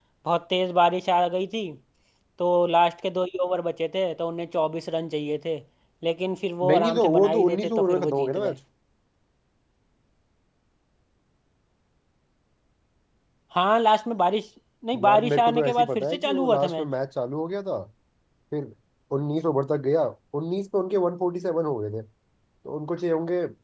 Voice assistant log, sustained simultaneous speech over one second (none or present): present